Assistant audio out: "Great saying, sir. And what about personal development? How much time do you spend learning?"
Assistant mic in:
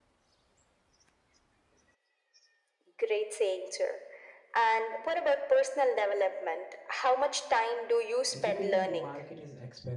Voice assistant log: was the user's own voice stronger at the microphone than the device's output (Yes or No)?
No